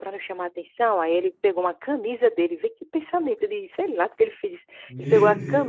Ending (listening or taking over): listening